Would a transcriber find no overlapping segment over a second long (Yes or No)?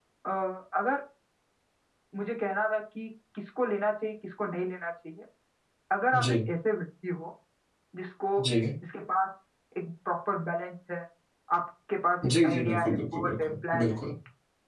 No